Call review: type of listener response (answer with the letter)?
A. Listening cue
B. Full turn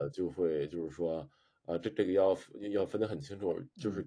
A